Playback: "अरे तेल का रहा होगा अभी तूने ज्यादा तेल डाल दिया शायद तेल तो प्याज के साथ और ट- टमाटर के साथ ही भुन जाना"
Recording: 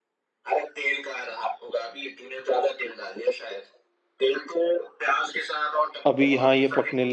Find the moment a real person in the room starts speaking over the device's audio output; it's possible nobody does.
6.0 s

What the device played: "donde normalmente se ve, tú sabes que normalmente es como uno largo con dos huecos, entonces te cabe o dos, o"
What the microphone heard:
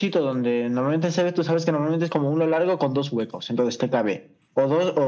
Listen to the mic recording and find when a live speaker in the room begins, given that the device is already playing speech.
none

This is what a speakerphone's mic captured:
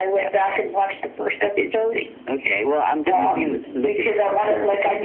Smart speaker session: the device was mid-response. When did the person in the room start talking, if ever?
3.1 s

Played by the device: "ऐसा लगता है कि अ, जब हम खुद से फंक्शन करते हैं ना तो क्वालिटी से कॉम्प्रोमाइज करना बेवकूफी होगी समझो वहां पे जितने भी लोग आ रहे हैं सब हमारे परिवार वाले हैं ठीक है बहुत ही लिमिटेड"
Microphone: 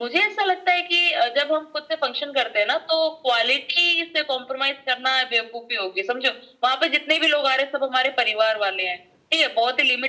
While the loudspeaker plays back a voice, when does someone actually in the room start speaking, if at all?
none

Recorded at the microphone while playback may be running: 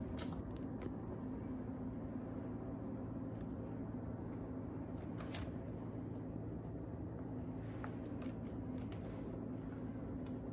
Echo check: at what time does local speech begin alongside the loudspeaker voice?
none

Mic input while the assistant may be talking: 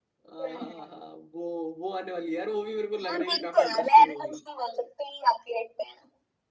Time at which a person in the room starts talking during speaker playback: 0.3 s

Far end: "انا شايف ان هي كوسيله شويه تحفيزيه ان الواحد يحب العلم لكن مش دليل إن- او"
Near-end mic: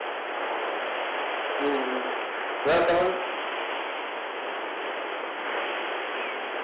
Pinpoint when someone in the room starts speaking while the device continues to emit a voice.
1.6 s

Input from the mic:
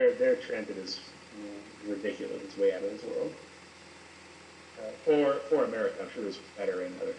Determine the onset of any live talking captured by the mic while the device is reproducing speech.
none

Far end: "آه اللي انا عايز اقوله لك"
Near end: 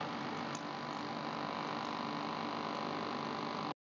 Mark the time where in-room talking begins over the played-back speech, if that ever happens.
none

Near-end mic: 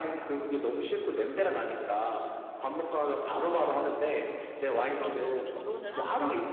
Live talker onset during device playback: 4.8 s

